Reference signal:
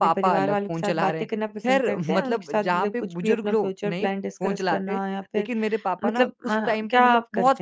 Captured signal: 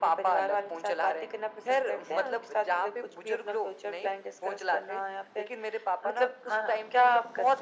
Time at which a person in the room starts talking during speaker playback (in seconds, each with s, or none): none